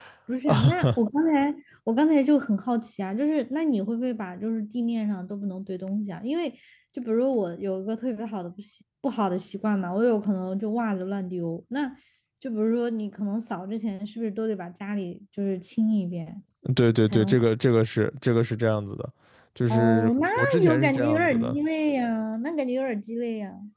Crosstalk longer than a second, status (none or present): present